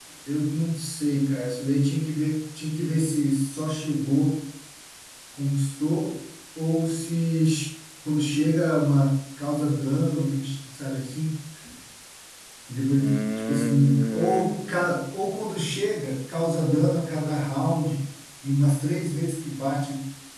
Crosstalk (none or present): present